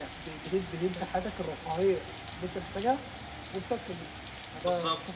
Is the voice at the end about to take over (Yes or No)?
Yes